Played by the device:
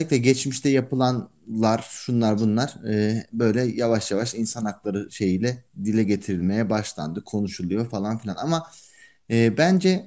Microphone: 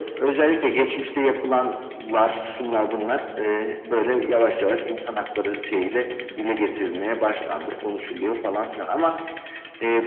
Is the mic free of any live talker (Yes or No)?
Yes